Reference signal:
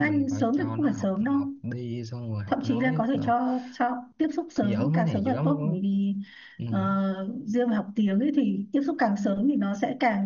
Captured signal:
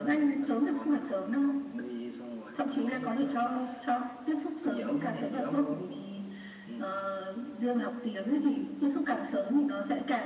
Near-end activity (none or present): none